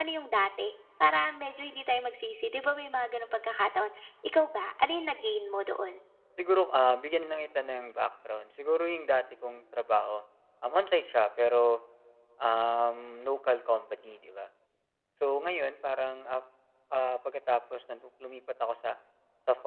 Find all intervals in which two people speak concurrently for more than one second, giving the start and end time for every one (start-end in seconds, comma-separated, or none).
none